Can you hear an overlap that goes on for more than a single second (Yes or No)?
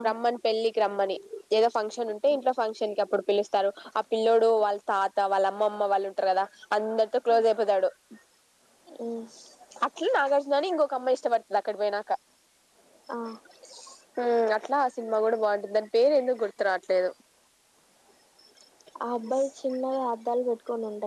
No